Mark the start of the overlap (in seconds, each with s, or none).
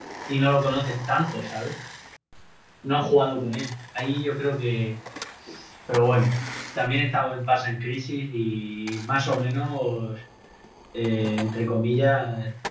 none